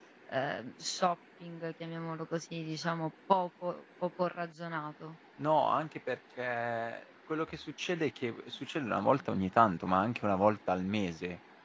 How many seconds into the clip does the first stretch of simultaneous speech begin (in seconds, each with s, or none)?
none